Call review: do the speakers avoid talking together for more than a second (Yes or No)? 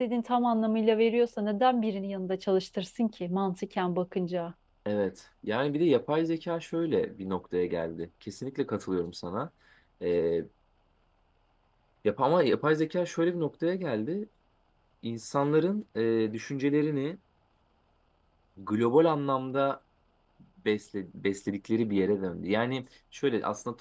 Yes